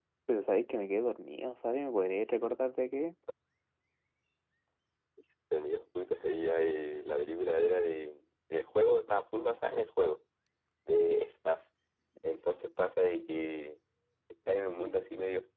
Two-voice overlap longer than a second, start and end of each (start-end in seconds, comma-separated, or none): none